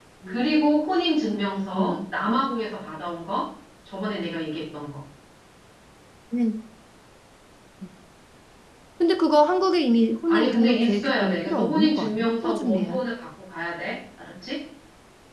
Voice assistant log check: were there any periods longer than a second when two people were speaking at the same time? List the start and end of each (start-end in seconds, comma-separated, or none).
10.3-13.0